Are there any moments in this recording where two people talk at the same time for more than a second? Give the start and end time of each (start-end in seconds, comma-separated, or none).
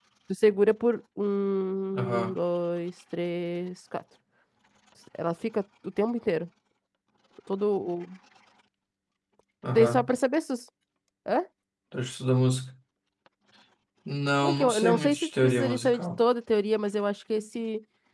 14.4-16.2